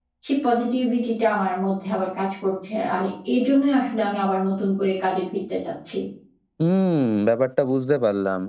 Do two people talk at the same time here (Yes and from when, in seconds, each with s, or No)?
No